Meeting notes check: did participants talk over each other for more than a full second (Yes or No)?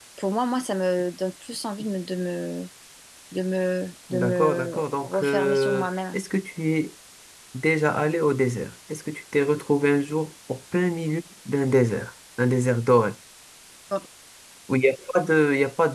Yes